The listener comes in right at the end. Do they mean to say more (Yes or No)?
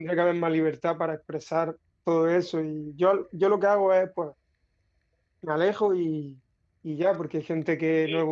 No